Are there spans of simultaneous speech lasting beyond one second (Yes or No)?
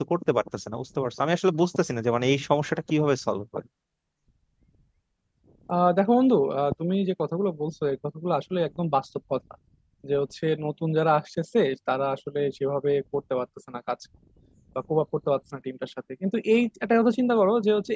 No